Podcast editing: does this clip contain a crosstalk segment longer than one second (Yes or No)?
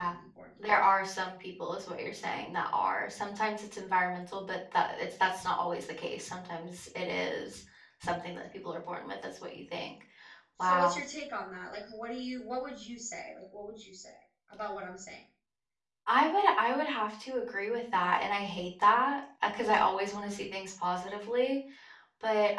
No